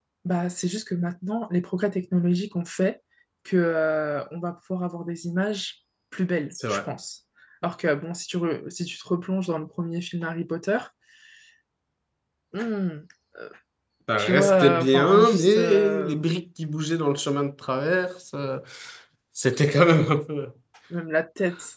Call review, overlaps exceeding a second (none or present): present